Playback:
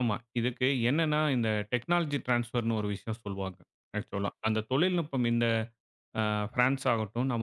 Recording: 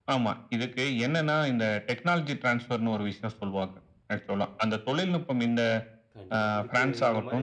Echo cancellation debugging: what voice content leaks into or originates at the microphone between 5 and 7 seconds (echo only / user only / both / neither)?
both